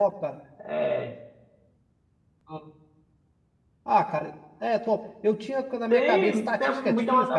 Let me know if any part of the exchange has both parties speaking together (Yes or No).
Yes